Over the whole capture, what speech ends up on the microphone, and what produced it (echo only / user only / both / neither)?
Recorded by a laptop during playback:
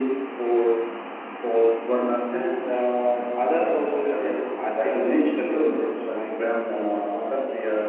both